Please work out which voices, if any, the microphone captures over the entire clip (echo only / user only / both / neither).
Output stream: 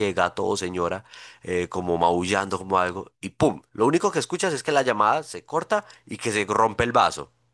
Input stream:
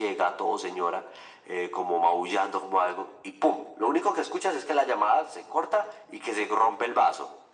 echo only